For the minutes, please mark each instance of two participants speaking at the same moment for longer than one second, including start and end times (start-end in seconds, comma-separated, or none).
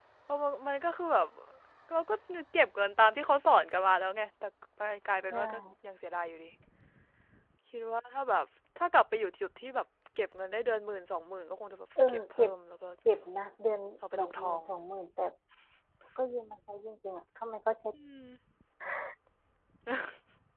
none